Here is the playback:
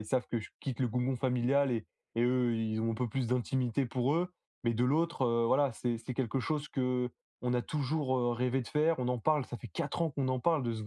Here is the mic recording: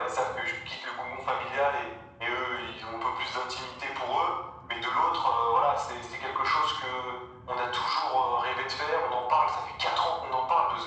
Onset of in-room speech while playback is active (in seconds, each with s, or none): none